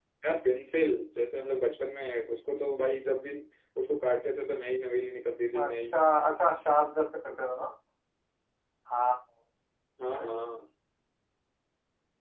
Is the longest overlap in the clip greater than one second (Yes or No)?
No